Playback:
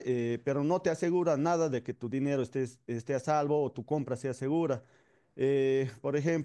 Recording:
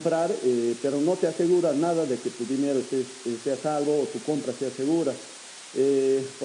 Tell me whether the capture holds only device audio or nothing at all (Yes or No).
Yes